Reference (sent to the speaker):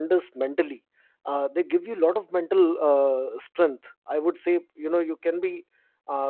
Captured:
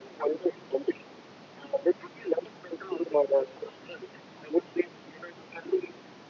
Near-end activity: none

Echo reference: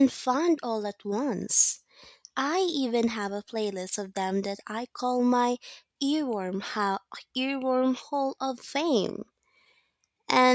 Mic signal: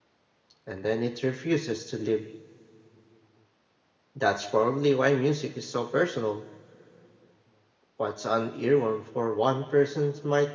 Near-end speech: present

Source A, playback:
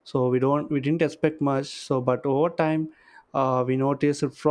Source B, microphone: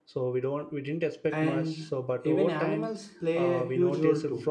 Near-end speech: present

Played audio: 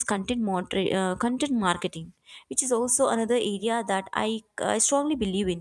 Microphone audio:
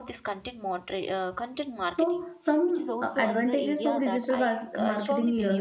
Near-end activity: present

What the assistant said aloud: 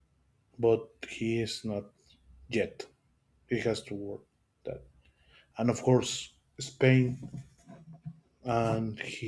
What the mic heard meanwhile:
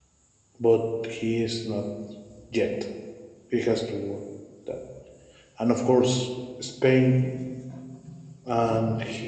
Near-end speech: none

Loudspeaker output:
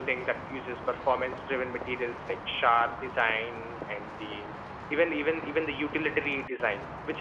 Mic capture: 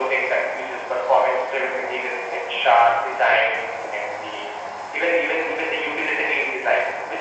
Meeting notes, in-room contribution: none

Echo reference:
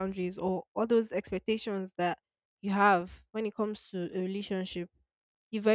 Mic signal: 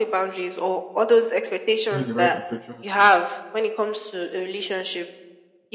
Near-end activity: present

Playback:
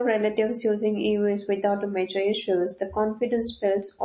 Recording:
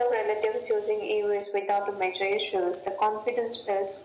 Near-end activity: none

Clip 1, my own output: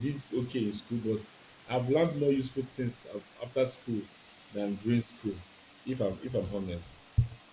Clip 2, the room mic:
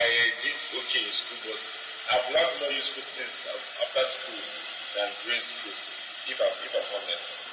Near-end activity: none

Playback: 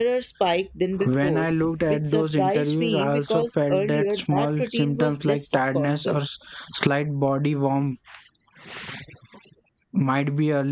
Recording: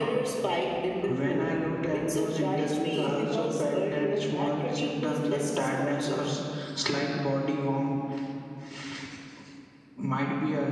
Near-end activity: none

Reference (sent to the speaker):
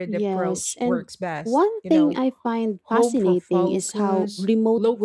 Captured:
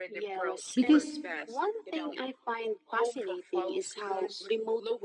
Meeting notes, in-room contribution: present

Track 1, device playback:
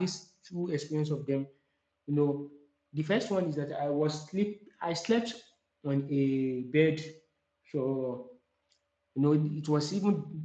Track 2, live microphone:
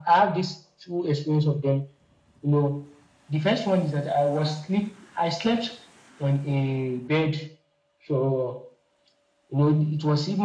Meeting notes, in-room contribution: none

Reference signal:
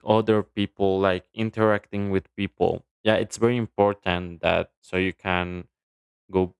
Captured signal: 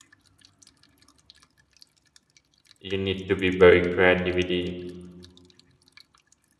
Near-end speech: present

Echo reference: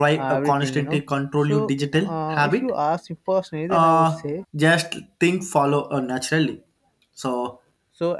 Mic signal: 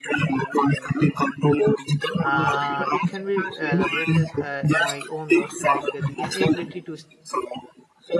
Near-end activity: present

